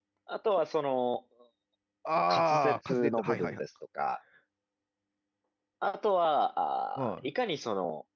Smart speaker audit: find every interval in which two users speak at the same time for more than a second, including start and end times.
2.3-3.6

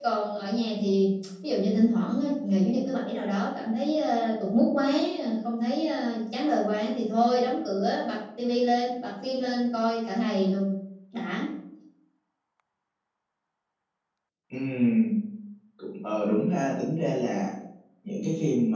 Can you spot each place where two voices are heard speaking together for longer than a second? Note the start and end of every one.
none

